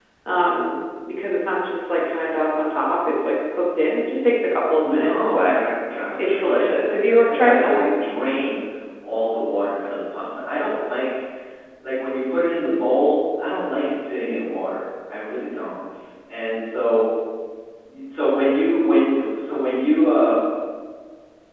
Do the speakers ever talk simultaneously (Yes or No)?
Yes